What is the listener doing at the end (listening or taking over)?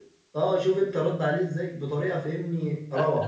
taking over